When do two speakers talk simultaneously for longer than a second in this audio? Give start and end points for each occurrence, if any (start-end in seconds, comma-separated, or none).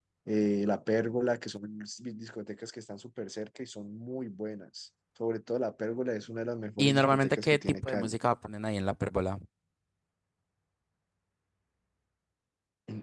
6.8-8.1